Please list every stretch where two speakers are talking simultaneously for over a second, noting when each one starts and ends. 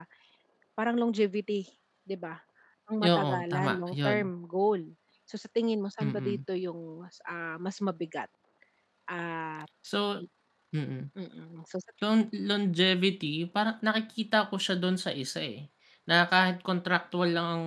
3.0-4.3

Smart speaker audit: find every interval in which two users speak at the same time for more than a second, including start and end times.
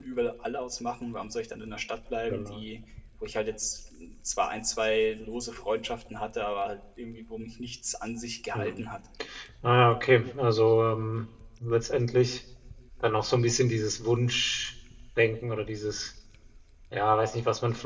none

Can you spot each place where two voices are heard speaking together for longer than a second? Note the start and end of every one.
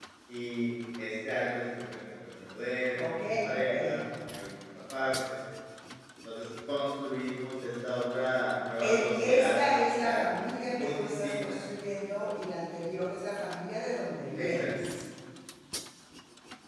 8.8-11.3

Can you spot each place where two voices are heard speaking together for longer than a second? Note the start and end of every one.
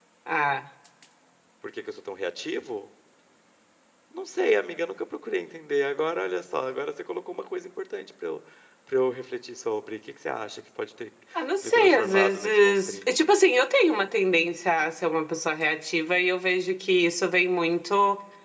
11.6-13.2

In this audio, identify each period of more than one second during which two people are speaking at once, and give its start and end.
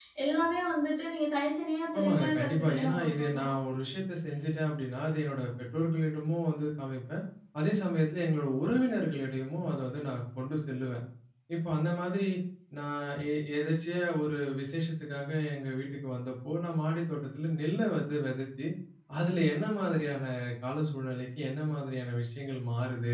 1.9-3.5

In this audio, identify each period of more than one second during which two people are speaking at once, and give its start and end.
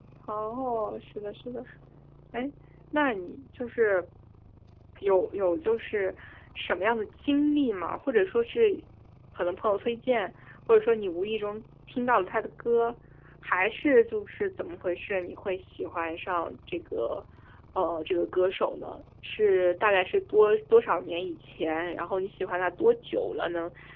none

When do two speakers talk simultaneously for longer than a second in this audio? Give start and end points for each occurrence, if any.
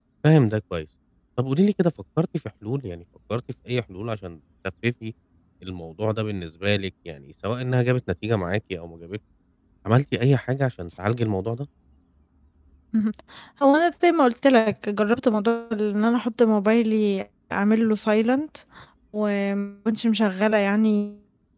none

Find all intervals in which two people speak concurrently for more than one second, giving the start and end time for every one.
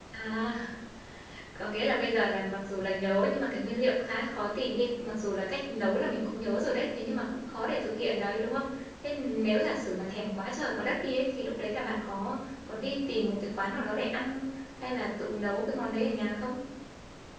none

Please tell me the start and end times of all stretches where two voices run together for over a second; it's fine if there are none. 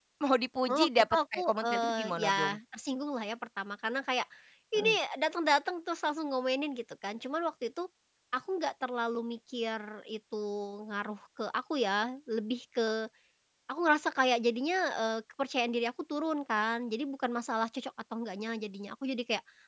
0.7-2.6

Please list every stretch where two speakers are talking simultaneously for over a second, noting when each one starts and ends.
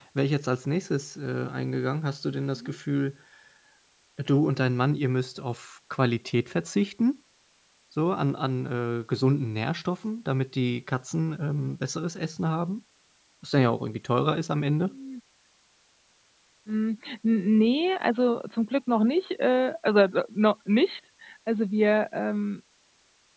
none

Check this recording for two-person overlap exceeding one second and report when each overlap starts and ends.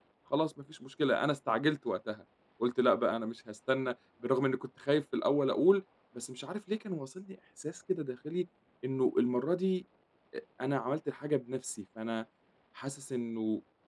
none

